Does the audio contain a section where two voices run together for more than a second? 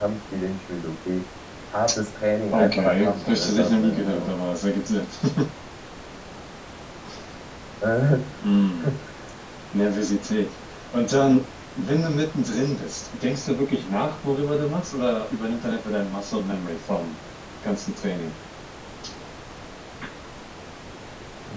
Yes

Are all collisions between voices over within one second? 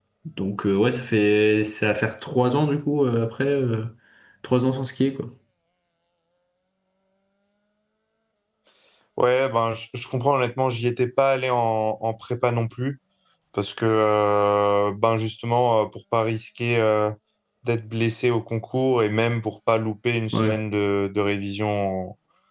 Yes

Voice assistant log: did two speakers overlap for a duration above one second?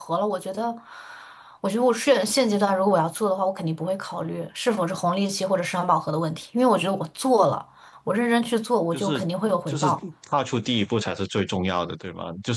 No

